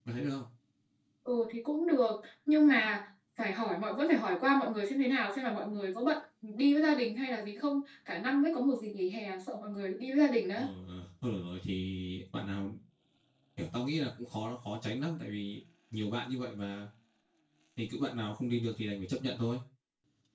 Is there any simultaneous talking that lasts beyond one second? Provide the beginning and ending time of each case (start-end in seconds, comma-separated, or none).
none